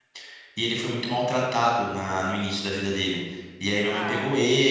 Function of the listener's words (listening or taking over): listening